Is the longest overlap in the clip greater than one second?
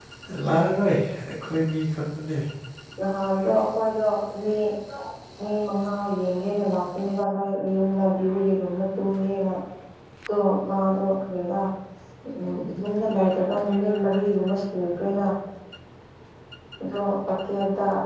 No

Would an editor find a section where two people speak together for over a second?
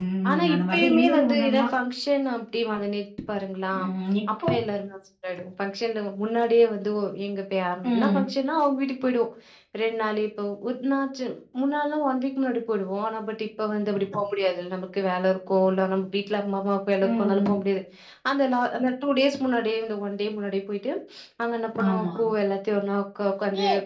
Yes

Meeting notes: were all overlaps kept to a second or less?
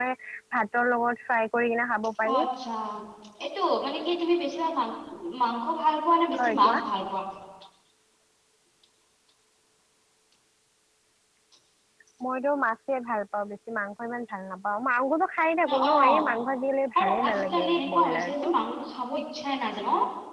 No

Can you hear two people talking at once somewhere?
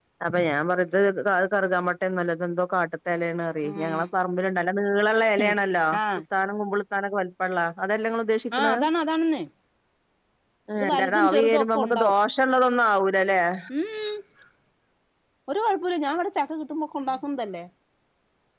Yes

